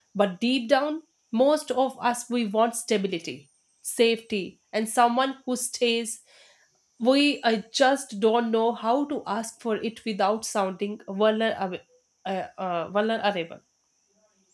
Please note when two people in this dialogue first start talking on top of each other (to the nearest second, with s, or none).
none